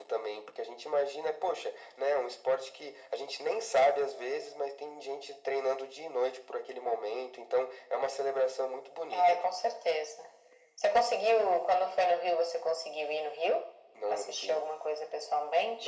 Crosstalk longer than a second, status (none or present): none